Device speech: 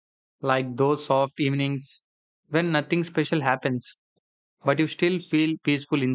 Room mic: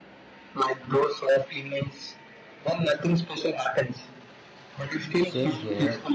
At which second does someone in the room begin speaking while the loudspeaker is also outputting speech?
5 s

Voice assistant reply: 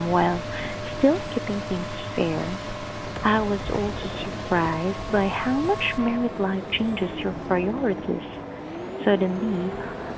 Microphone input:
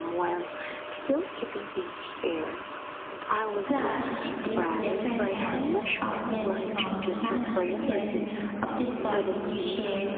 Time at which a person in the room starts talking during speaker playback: 4 s

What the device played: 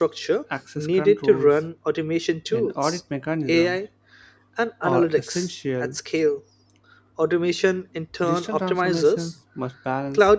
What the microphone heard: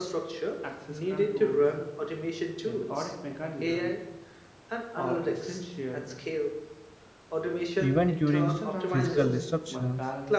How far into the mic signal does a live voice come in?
8 s

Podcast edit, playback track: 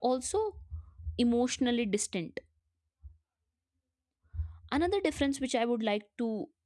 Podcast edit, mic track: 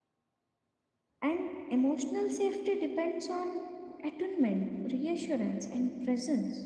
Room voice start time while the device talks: 1 s

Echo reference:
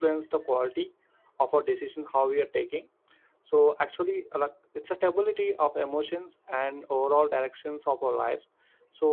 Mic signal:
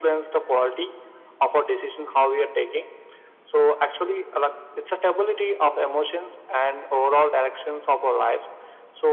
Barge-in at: none

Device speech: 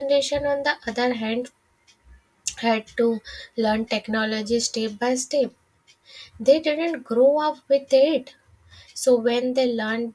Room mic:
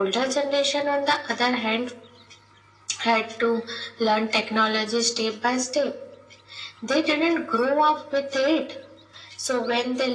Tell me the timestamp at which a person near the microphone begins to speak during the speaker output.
none

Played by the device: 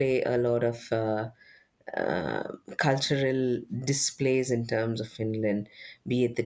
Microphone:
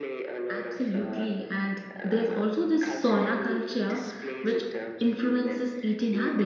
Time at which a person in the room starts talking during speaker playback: 0 s

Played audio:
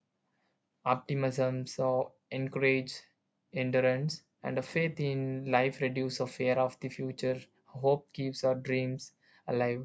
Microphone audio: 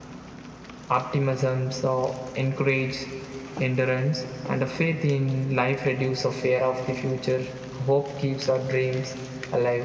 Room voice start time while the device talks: none

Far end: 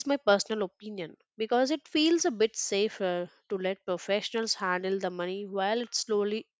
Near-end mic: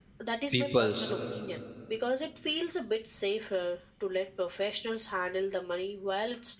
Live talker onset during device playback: 1 s

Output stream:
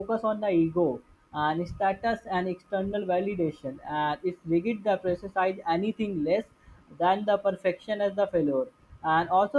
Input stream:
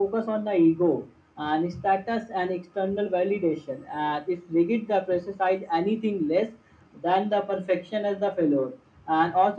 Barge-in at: none

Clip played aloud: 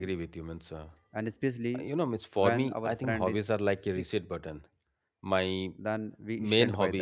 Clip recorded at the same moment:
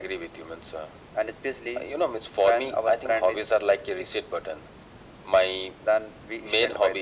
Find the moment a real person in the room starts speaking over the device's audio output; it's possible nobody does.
none

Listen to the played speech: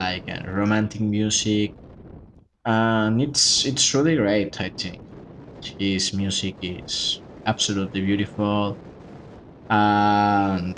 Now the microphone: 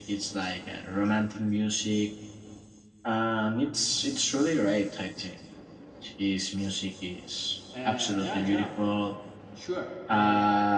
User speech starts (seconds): 8 s

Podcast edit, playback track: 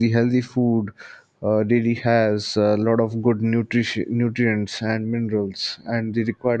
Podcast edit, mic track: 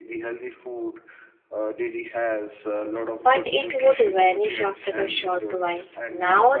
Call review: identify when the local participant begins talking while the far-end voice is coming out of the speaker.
3 s

